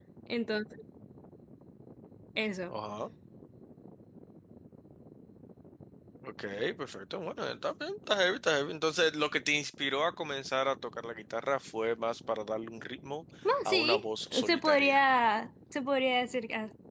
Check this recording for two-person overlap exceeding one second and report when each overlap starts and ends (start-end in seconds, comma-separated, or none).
13.7-15.0